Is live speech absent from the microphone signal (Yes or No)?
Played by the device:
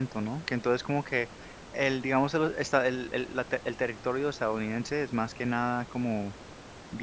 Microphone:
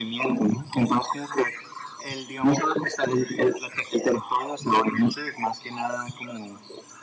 Yes